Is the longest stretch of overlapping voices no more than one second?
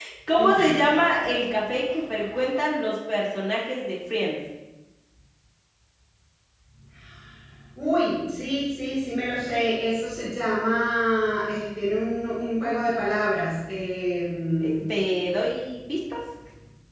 Yes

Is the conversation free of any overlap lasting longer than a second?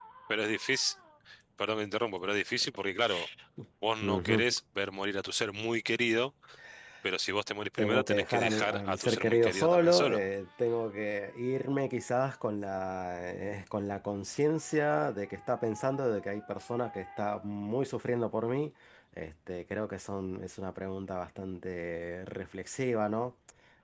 No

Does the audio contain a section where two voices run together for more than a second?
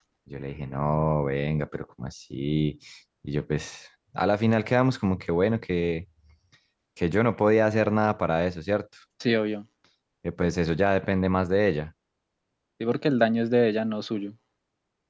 No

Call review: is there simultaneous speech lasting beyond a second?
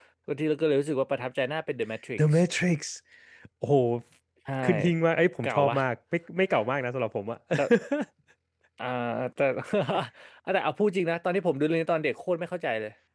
No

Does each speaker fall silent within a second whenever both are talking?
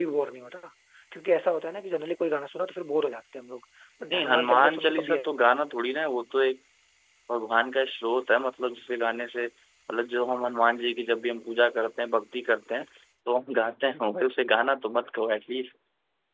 No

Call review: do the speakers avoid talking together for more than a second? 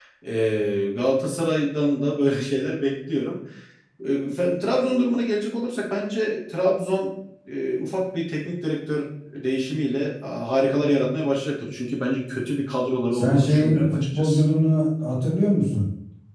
No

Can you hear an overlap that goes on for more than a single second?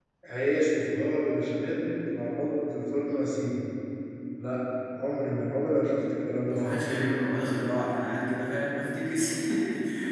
No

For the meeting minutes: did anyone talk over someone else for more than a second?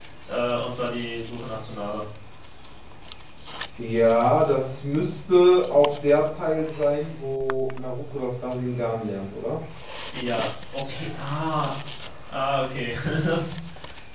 No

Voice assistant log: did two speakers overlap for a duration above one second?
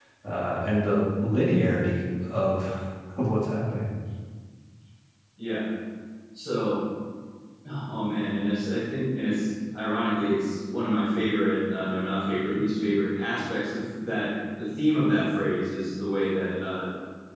No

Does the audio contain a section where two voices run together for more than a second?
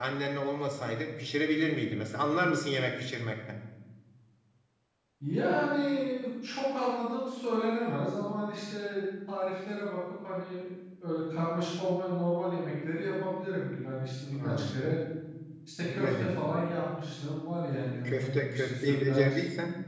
Yes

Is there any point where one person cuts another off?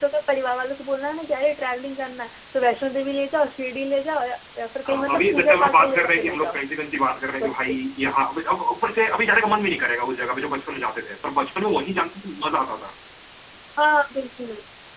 Yes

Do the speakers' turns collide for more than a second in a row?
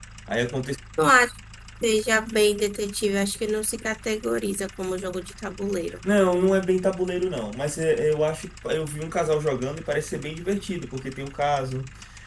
No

